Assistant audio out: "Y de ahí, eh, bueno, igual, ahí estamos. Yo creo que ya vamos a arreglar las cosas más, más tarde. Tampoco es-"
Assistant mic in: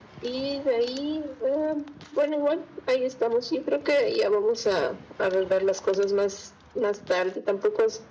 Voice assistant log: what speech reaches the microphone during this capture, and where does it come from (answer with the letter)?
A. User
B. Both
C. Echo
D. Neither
C